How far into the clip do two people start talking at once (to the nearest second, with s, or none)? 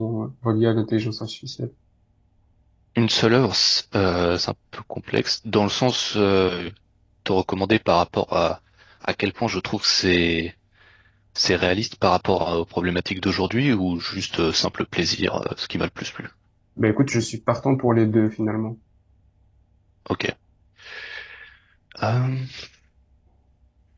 none